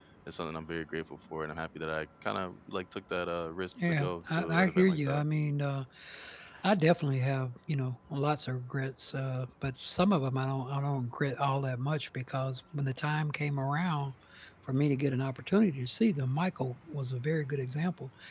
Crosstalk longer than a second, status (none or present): present